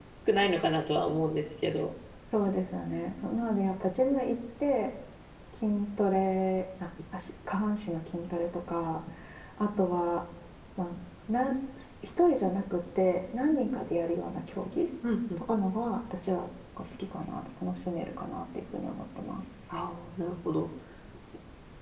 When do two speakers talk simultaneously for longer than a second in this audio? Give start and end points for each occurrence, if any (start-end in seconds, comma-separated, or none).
none